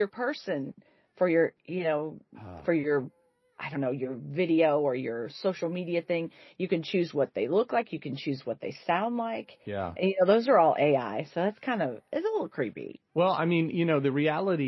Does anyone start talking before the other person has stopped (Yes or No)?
No